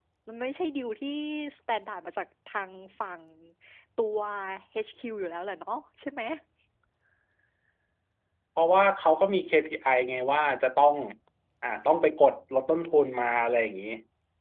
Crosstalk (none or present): none